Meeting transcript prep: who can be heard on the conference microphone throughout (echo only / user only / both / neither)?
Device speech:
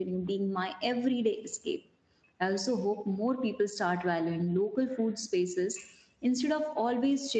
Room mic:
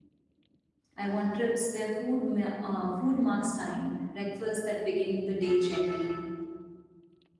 user only